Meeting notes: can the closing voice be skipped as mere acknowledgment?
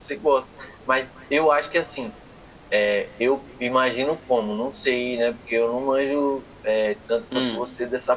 Yes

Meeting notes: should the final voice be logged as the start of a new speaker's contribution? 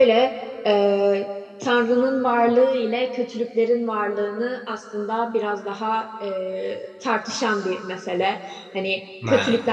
No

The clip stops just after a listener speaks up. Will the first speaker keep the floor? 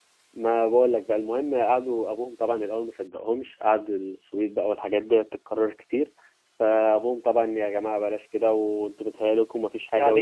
No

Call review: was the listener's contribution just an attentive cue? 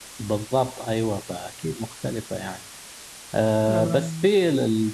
Yes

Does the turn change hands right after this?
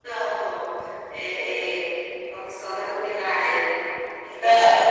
No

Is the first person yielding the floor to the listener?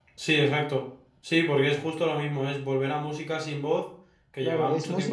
Yes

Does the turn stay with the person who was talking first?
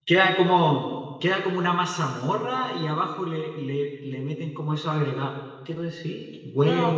No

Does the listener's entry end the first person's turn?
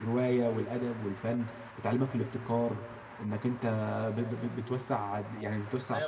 Yes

